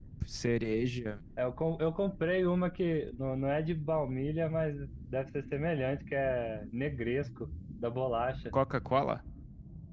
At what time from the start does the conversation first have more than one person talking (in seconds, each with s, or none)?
none